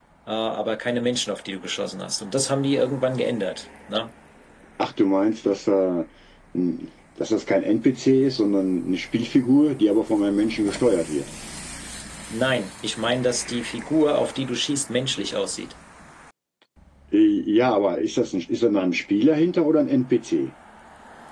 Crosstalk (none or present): none